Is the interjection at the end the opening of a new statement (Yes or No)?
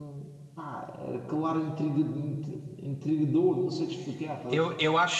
Yes